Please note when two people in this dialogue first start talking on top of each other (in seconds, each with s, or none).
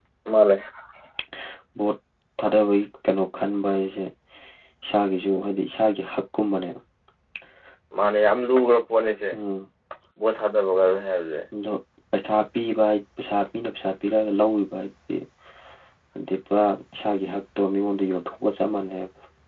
none